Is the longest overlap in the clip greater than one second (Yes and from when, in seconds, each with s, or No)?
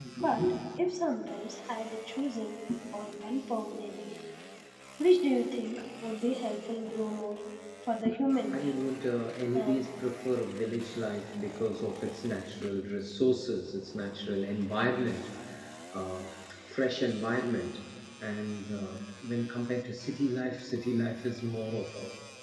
No